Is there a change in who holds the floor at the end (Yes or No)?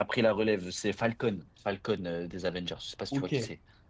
Yes